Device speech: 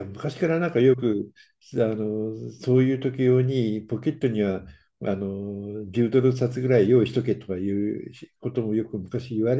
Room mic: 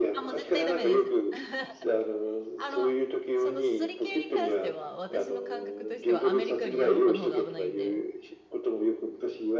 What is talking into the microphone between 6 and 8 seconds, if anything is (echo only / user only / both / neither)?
both